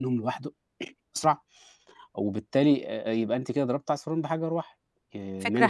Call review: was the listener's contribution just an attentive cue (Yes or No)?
No